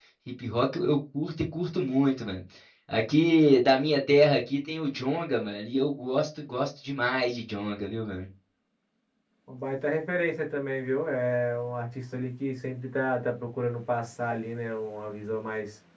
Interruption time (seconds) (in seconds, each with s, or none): none